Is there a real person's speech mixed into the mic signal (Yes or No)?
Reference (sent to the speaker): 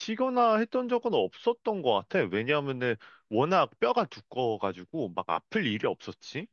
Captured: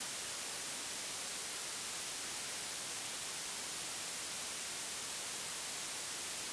No